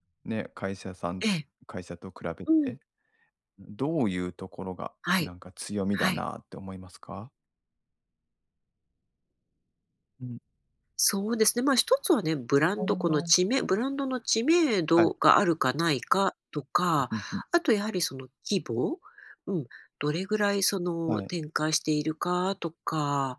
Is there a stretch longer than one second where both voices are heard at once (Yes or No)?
No